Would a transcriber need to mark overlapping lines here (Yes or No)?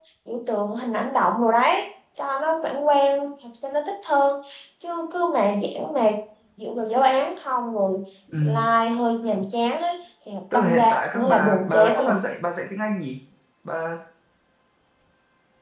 Yes